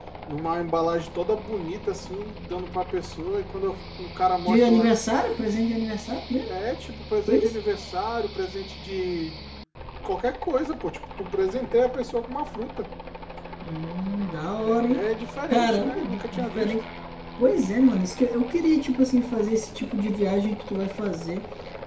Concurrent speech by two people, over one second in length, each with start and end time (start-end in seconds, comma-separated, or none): 15.5-16.7